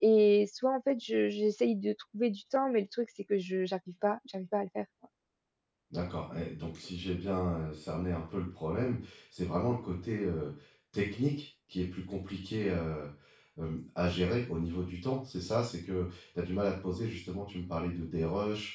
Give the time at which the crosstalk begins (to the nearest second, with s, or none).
none